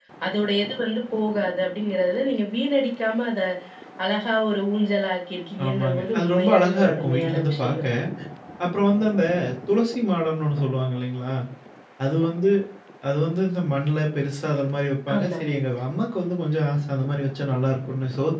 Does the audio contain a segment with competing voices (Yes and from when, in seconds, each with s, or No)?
Yes, from 5.6 s